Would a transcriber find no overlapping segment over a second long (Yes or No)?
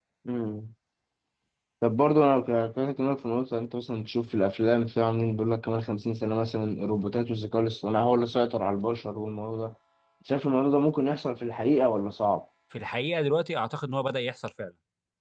Yes